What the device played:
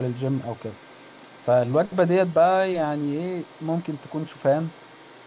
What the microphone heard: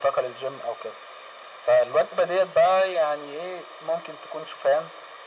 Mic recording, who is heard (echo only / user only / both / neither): echo only